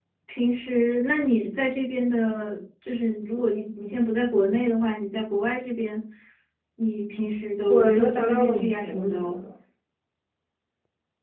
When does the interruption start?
7.7 s

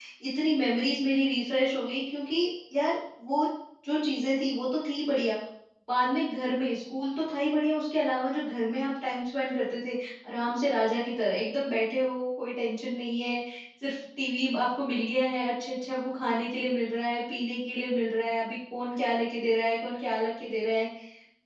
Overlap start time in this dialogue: none

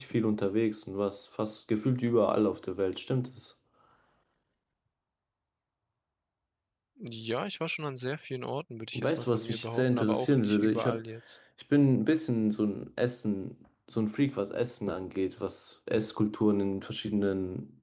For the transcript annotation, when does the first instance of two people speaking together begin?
8.9 s

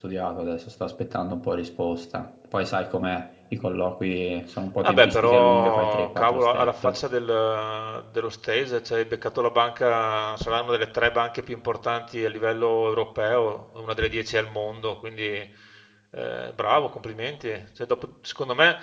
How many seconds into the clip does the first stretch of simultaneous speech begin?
4.8 s

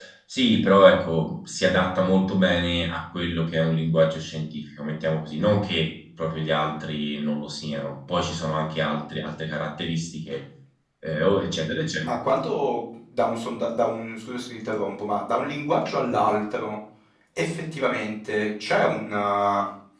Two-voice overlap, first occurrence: none

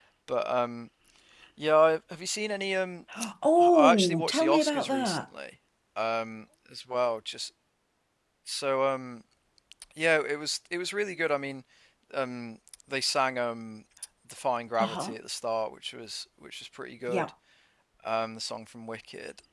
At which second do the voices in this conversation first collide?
3.6 s

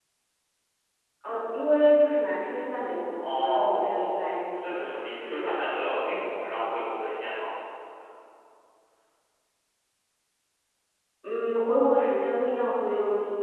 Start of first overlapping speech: 3.2 s

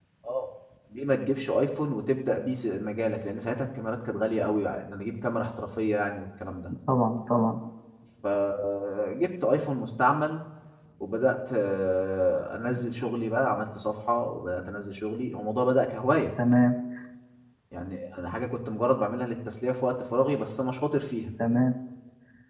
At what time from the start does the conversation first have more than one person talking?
none

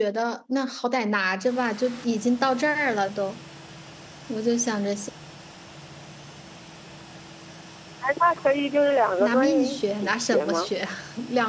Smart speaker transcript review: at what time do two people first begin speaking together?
9.2 s

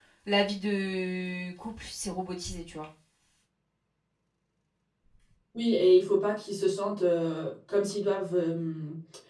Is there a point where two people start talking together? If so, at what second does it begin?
none

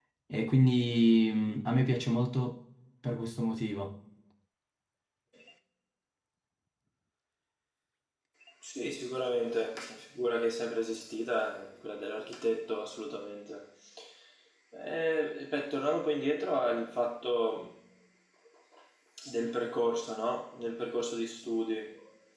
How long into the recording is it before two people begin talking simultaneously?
none

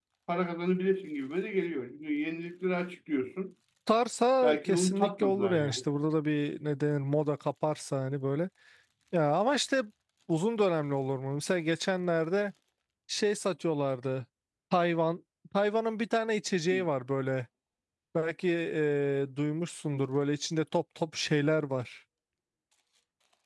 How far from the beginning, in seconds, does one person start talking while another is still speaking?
4.4 s

